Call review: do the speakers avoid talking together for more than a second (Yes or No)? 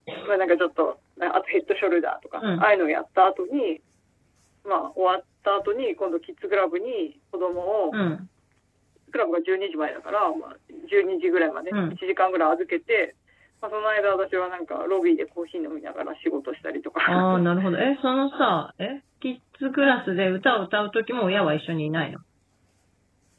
Yes